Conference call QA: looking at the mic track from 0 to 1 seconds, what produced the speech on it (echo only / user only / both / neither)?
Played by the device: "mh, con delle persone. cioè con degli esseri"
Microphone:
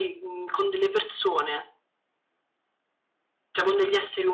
echo only